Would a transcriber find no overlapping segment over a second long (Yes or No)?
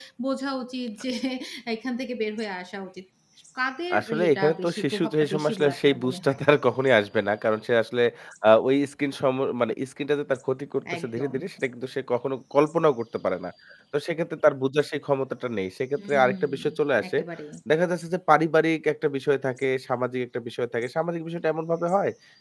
No